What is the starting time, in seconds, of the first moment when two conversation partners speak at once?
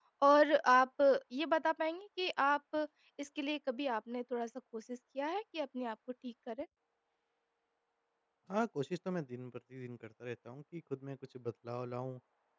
none

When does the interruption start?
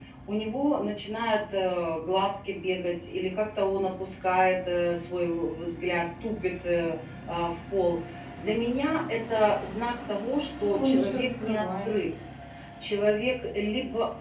10.5 s

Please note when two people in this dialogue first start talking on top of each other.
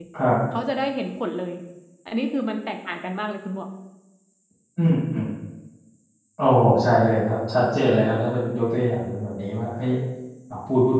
none

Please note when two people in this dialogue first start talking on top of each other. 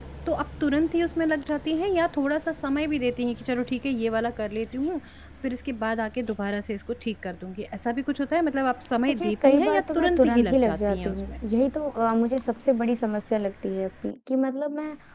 9.1 s

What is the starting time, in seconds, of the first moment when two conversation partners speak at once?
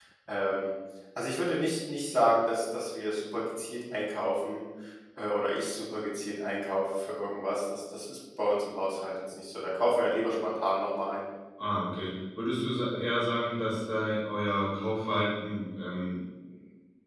none

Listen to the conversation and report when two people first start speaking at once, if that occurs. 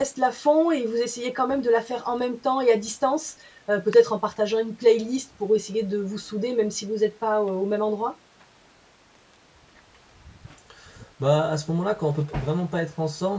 none

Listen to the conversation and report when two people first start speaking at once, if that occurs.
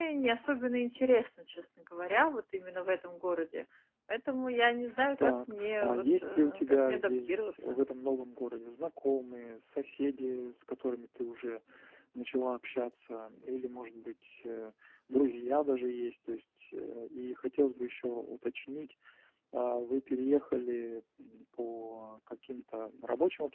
5.2 s

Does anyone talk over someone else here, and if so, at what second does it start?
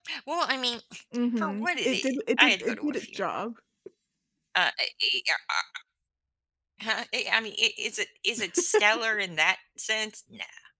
1.4 s

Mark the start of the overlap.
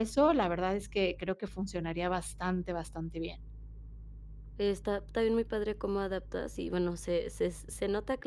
none

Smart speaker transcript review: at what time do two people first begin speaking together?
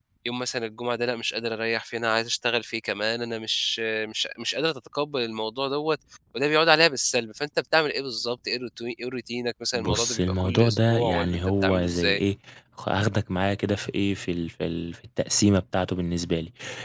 9.7 s

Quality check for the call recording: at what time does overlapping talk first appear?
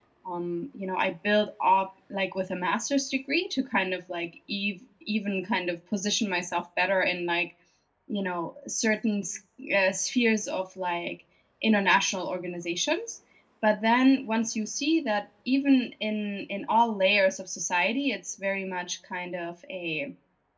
none

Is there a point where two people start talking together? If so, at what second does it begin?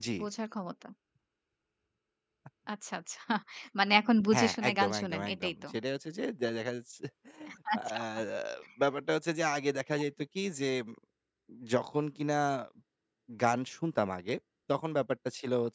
4.3 s

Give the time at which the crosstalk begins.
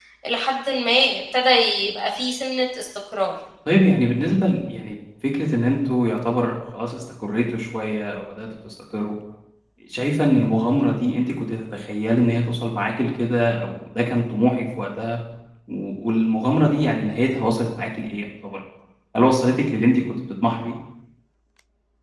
none

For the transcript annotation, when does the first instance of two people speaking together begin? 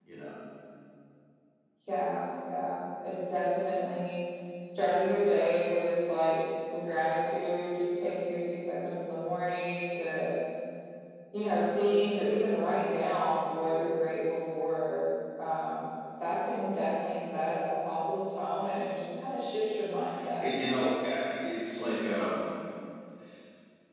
none

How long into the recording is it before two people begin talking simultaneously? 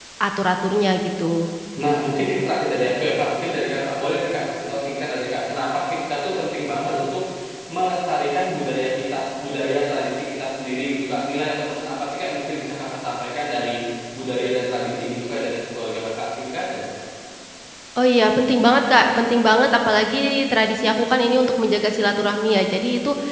none

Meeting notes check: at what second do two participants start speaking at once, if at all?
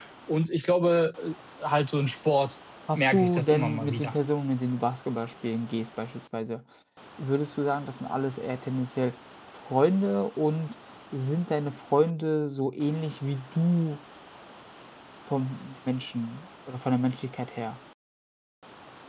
2.9 s

